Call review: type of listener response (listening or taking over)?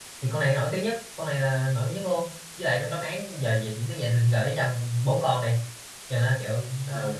taking over